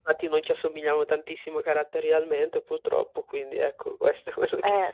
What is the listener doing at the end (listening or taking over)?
taking over